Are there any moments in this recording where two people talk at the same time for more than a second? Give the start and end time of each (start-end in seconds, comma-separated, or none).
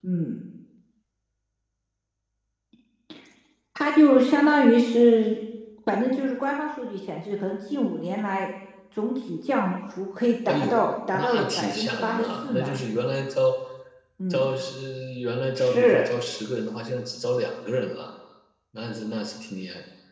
11.1-12.7